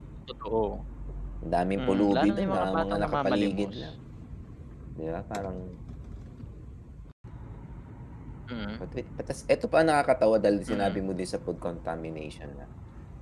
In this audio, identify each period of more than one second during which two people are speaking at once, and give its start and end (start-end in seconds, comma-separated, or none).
1.8-3.9